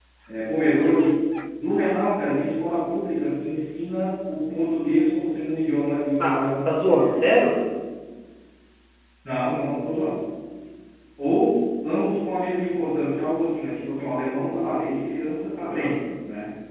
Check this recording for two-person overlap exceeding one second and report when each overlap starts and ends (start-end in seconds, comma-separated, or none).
6.2-7.5